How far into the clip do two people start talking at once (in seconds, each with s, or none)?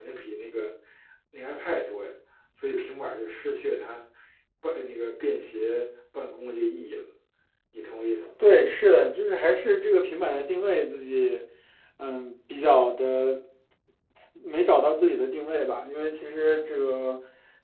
none